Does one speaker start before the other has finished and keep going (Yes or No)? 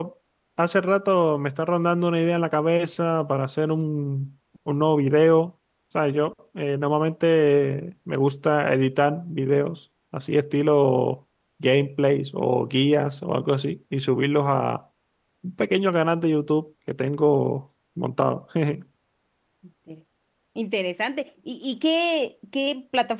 No